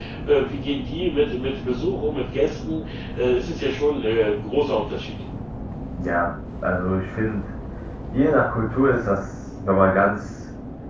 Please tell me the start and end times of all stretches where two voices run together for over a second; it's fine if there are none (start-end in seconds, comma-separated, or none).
none